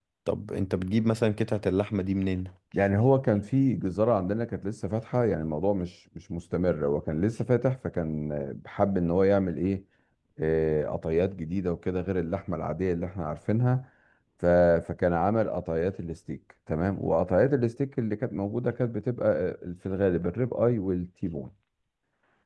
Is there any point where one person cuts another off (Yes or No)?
No